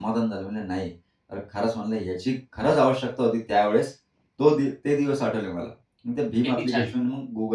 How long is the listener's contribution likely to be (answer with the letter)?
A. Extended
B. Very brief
B